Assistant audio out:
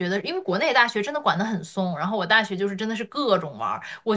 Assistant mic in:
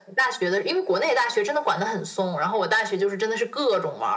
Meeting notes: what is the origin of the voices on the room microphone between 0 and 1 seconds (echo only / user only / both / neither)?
echo only